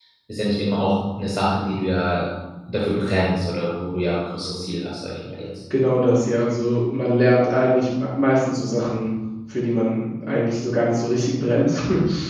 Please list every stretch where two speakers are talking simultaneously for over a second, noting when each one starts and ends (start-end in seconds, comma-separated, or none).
none